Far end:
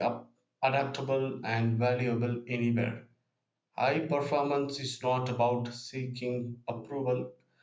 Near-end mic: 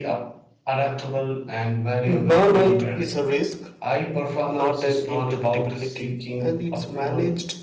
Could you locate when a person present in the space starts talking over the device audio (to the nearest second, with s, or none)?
2 s